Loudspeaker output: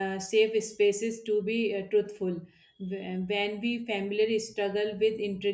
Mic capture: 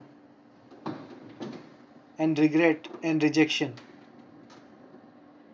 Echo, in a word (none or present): none